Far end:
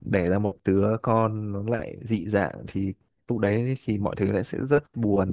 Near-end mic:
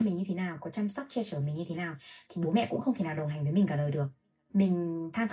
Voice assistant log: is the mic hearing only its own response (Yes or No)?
No